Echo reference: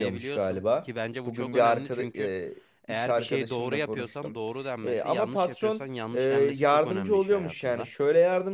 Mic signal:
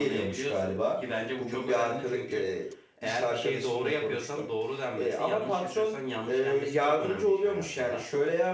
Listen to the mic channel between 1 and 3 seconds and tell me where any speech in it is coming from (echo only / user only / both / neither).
echo only